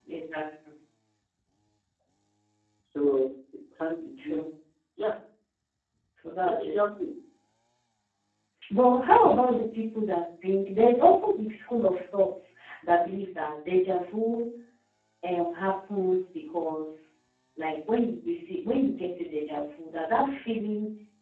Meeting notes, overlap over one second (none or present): none